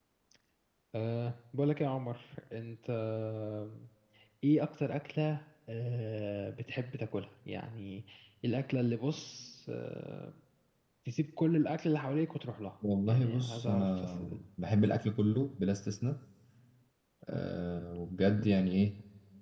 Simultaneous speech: Yes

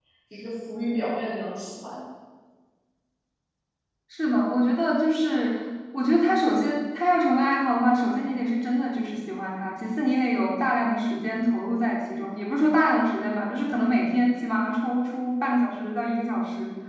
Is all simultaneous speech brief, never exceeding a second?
Yes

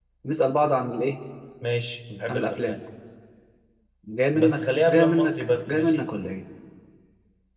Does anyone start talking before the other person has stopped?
Yes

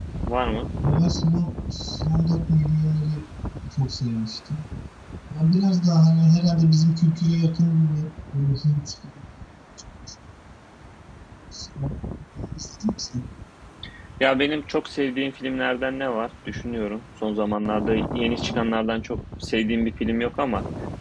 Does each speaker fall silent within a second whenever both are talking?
Yes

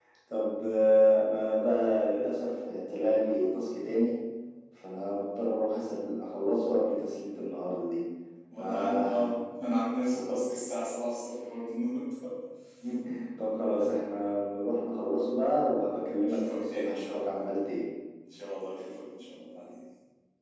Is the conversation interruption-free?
No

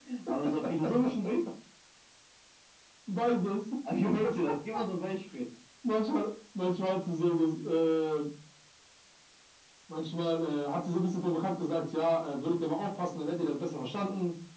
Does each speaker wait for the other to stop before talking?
Yes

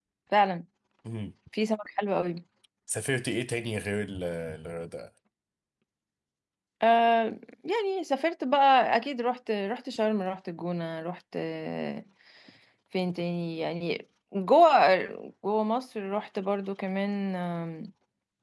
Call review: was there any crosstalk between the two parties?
No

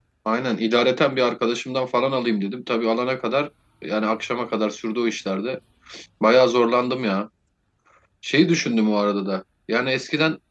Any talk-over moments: No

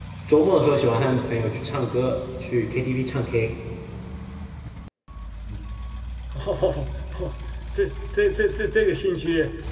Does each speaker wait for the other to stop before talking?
Yes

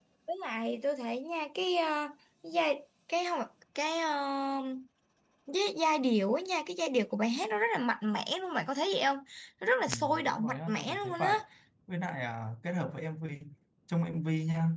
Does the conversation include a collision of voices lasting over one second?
Yes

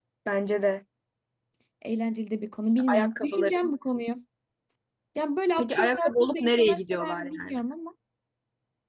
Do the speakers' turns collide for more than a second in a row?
Yes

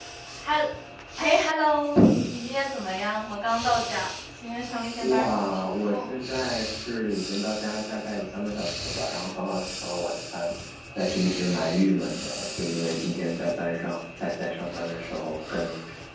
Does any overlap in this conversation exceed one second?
Yes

